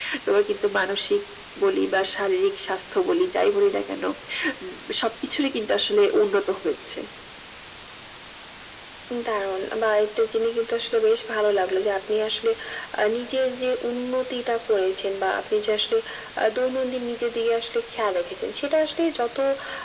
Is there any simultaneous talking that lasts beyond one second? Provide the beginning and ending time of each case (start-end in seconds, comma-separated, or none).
none